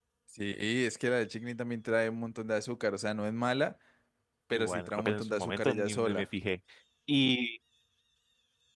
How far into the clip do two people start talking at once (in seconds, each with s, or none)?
4.5 s